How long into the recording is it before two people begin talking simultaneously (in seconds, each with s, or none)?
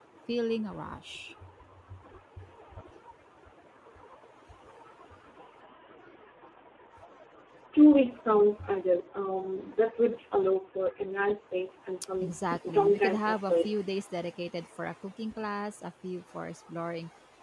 12.2 s